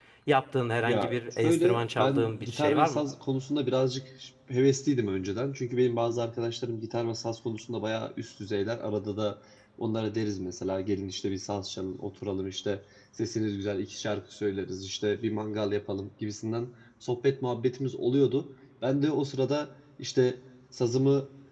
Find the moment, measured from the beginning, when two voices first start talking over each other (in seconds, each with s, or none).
0.9 s